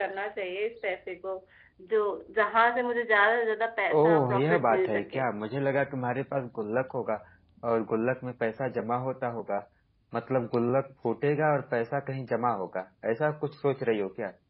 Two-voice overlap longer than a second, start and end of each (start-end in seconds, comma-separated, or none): 3.9-5.2